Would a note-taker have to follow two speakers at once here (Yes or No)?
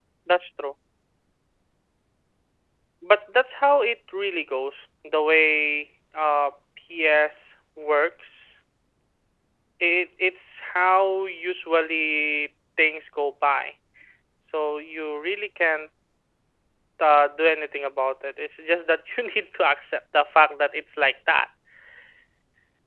No